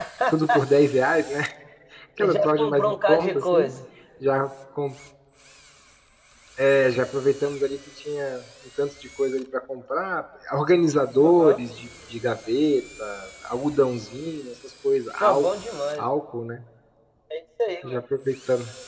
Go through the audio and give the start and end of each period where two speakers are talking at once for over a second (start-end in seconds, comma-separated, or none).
2.2-3.7